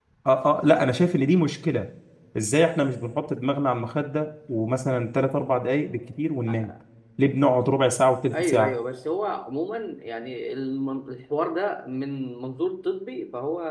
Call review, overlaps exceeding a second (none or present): none